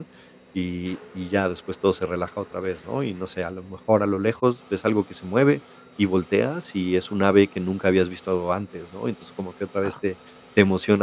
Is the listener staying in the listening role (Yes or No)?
Yes